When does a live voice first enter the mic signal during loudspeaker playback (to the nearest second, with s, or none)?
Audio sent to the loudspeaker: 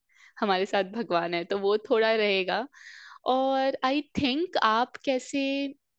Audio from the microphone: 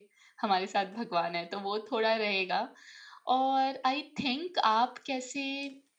none